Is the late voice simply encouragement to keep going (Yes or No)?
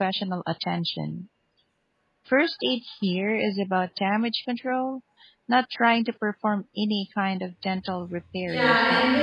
No